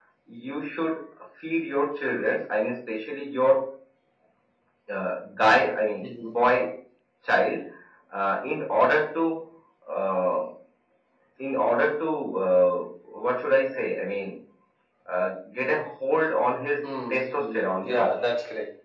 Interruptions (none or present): present